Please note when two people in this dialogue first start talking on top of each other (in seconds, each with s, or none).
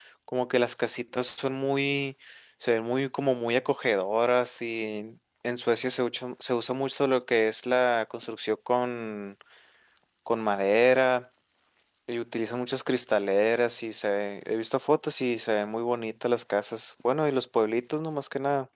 none